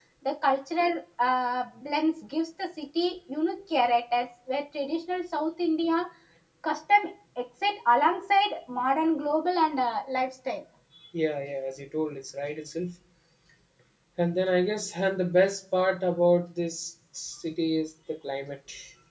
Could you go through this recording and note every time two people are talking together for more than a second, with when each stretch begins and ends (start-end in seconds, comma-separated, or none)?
none